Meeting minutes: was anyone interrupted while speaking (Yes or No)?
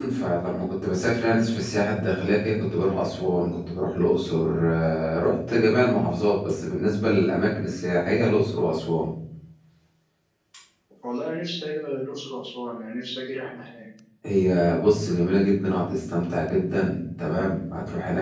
No